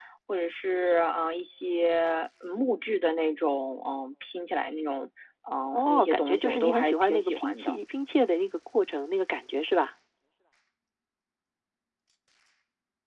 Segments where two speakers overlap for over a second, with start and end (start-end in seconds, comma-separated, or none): 5.7-7.7